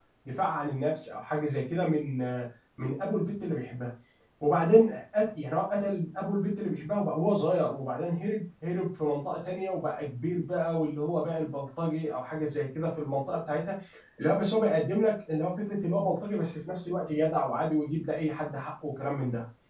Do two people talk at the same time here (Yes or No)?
No